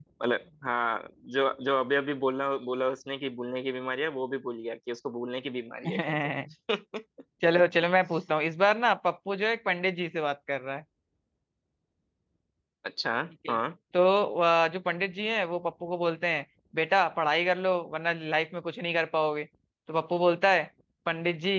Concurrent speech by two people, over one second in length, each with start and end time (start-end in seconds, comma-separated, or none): none